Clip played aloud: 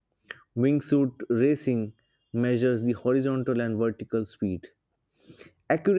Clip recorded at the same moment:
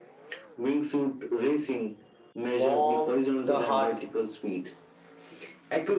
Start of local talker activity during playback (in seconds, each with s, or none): 2.6 s